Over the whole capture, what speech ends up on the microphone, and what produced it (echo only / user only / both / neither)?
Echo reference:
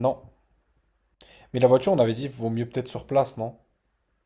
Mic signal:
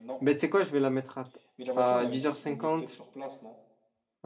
both